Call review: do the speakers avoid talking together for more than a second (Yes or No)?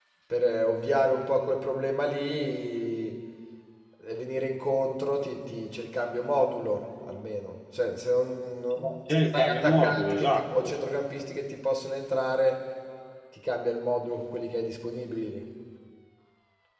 No